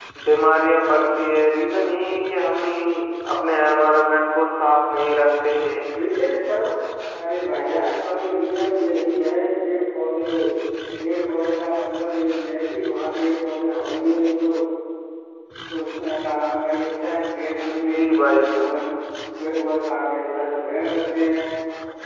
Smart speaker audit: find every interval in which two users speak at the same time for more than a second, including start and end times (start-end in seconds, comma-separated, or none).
none